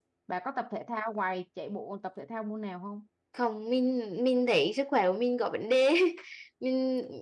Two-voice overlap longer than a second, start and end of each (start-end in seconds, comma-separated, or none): none